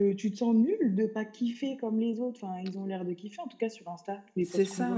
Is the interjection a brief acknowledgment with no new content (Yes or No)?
No